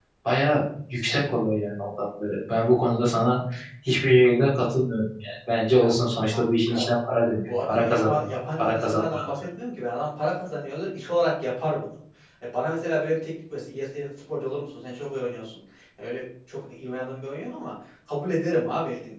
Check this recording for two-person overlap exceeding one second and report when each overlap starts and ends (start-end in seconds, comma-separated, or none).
7.5-9.2